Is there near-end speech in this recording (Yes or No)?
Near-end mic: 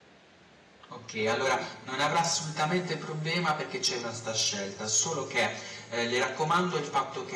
Yes